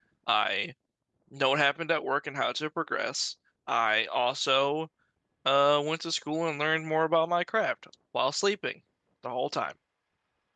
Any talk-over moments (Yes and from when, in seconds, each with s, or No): No